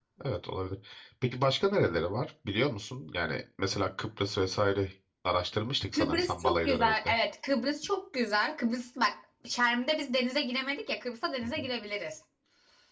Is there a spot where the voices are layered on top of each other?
Yes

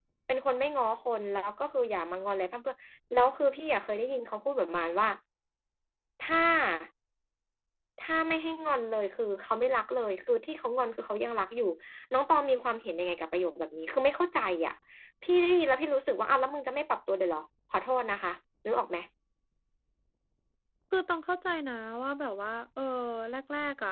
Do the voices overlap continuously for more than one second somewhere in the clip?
No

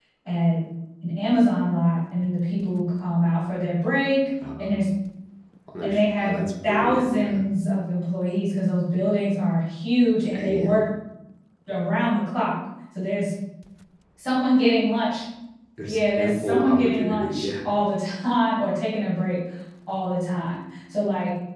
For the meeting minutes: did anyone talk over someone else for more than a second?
Yes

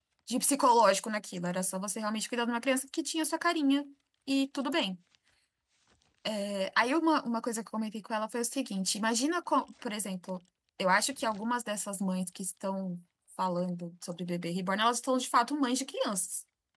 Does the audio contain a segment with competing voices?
No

